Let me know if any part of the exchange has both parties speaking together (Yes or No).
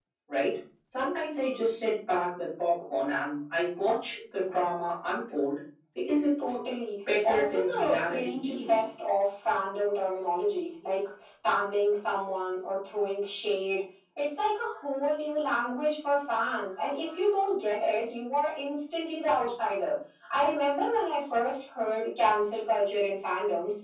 Yes